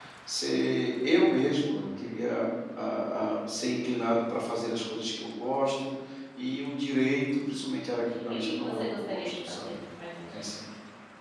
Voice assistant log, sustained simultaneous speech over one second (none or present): present